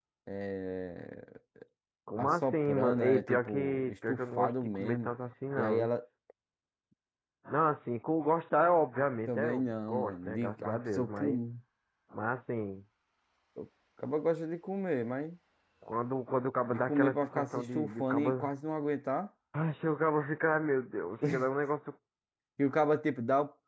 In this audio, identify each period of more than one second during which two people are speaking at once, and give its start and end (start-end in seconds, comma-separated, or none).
2.2-5.1, 9.3-11.4, 16.7-18.3